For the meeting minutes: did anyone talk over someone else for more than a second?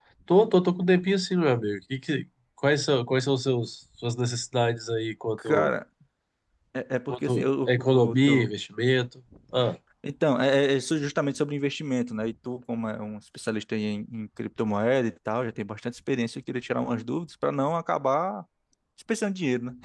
Yes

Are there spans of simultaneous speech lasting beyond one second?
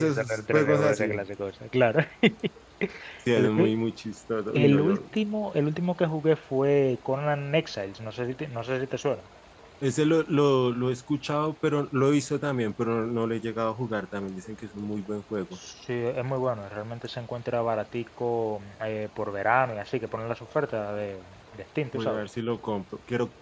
Yes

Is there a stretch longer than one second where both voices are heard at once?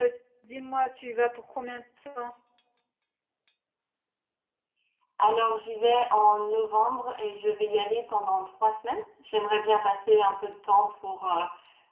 No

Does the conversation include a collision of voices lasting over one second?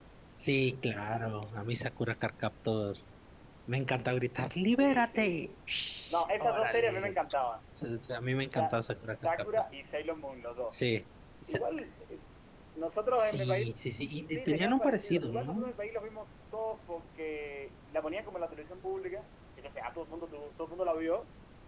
Yes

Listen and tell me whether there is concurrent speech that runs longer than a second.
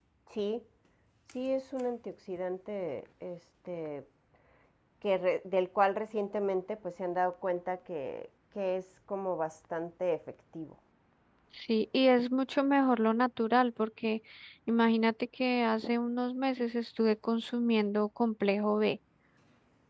No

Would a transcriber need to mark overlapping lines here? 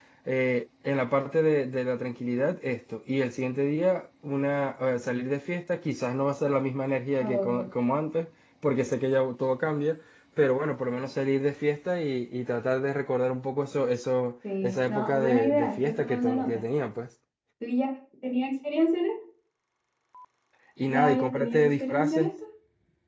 Yes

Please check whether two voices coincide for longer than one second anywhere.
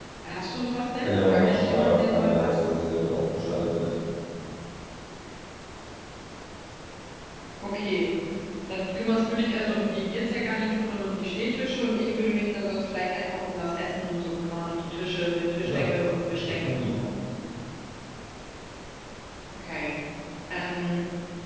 Yes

